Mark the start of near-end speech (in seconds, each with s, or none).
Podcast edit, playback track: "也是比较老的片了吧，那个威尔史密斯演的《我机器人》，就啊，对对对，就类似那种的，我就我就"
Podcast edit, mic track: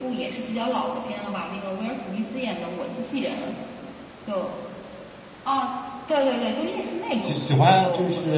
7.2 s